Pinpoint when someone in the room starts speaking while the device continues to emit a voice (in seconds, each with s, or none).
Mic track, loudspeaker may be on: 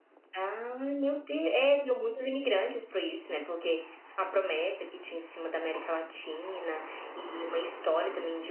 none